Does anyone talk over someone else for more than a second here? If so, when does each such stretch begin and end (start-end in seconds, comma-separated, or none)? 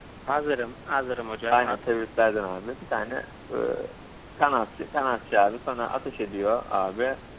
none